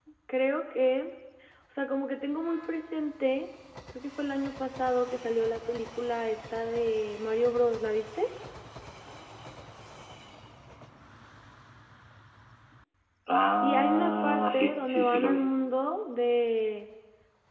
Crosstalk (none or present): present